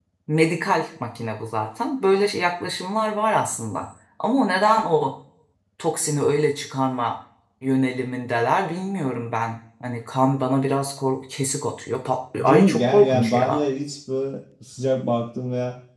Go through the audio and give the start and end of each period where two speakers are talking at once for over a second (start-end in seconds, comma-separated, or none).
12.4-13.6